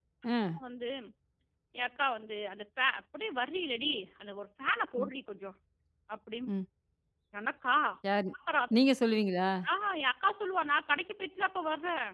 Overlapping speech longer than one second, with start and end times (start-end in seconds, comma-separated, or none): none